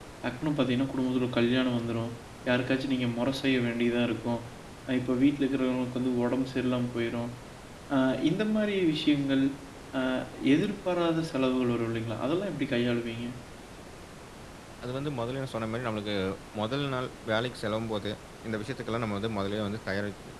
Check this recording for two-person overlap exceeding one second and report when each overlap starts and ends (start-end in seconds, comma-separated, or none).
none